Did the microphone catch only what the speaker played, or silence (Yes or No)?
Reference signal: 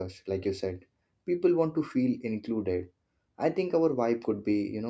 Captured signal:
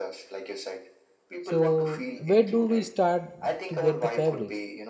No